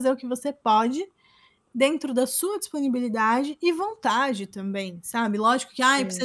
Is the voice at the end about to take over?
No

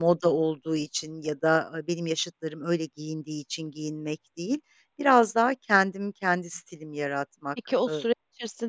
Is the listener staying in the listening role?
No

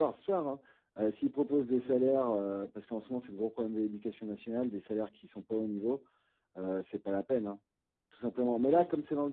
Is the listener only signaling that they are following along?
Yes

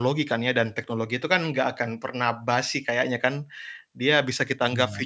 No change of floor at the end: Yes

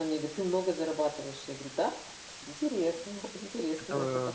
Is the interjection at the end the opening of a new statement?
Yes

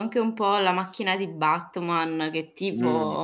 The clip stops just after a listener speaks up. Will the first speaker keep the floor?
Yes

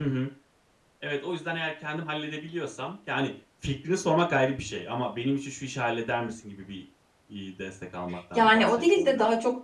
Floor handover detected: Yes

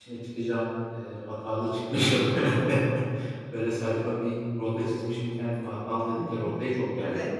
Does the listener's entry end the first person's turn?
Yes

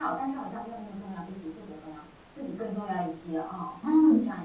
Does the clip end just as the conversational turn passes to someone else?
Yes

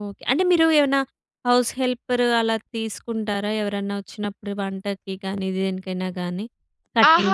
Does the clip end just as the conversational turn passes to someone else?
Yes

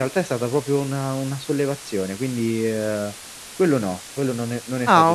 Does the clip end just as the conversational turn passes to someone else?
Yes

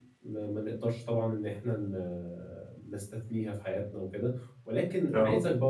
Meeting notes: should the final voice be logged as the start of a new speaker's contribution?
No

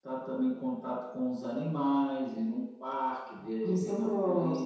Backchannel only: No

